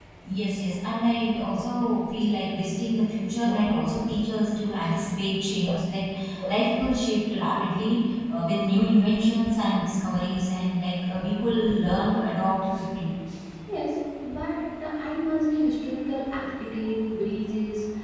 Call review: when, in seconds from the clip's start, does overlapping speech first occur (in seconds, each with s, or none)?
none